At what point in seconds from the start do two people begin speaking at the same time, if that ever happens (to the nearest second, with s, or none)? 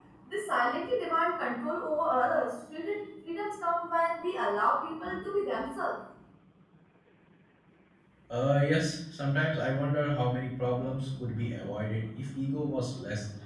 none